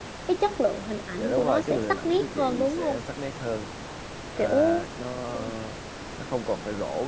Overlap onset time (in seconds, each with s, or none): 1.2 s